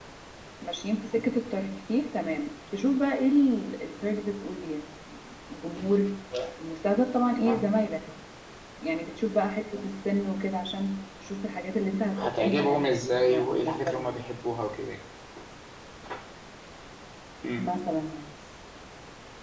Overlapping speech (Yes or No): Yes